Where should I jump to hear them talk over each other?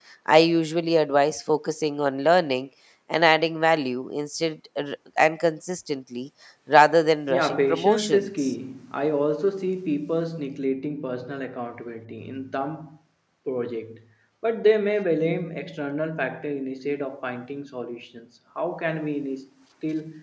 7.3 s

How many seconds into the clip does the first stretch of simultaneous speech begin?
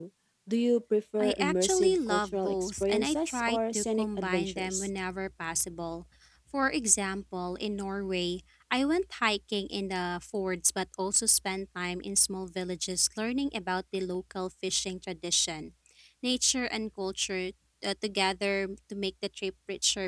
1.2 s

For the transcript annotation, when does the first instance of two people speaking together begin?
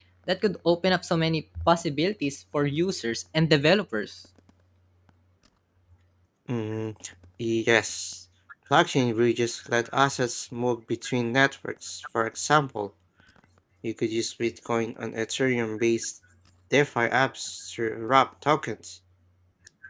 none

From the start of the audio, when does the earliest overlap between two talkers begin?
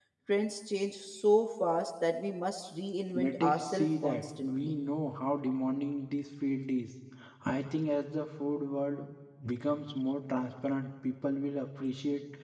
3.1 s

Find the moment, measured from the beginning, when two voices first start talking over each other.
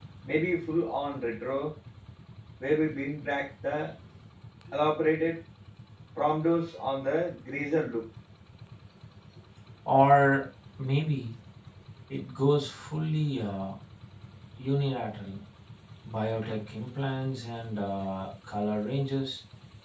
none

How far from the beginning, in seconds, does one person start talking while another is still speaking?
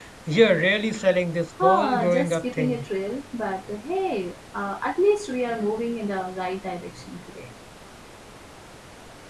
1.6 s

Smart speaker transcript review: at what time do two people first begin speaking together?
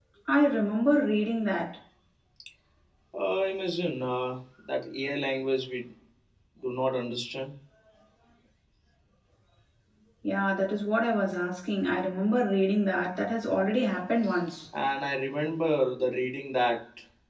none

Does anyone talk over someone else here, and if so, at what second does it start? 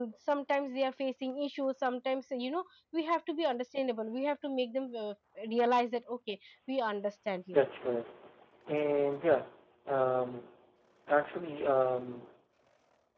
none

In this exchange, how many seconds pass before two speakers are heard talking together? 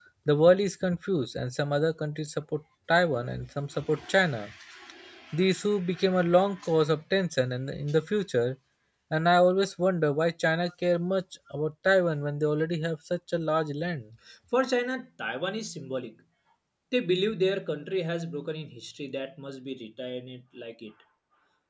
none

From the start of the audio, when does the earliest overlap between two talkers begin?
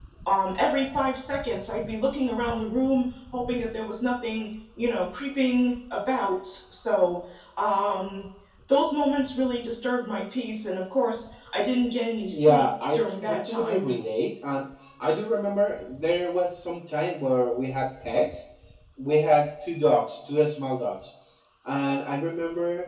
12.3 s

